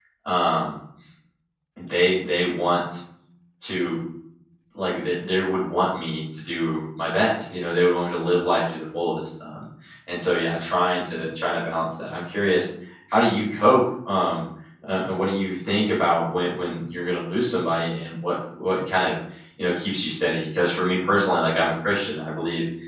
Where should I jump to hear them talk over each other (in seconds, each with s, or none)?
none